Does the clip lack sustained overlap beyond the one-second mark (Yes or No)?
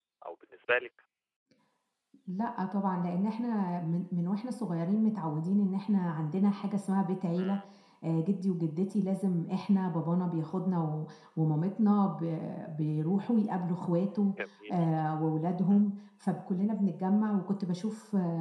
Yes